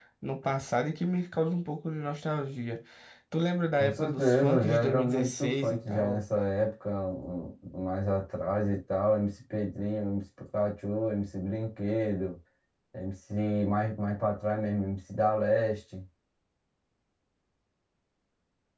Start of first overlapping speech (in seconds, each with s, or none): 3.8 s